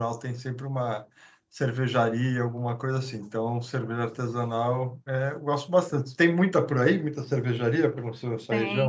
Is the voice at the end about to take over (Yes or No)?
Yes